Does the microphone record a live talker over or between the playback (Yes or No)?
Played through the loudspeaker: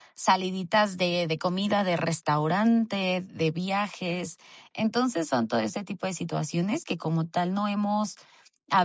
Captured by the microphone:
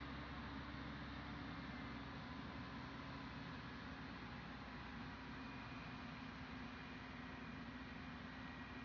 No